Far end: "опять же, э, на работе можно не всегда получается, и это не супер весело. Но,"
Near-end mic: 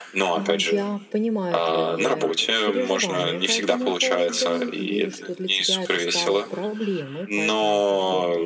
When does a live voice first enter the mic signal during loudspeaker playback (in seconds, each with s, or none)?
0.3 s